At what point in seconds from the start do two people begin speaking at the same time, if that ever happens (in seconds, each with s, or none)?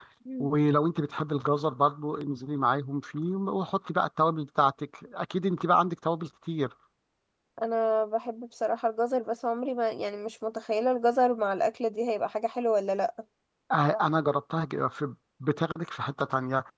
none